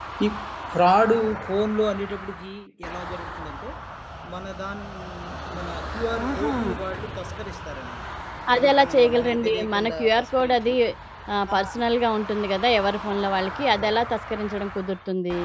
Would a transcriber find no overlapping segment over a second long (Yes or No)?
No